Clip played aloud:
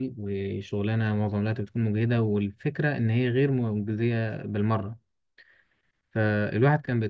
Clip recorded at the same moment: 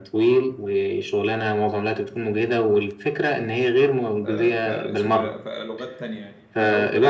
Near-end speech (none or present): present